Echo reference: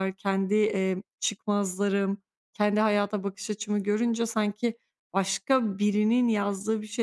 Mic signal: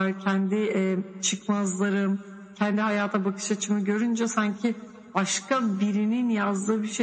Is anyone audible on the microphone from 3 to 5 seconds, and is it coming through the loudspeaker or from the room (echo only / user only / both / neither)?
echo only